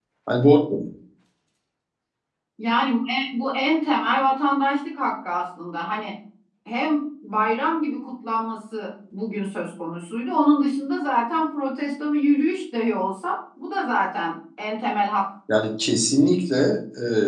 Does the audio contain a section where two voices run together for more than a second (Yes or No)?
No